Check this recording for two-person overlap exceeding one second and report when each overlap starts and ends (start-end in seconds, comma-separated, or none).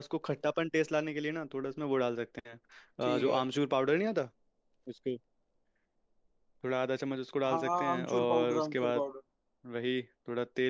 7.5-9.0